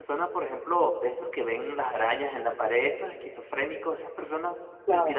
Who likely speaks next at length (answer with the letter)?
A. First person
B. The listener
A